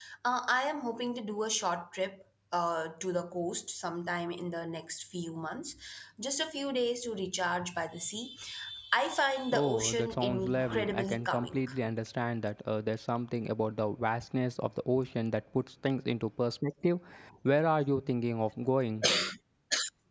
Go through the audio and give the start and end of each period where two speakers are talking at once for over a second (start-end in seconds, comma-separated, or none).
9.5-11.6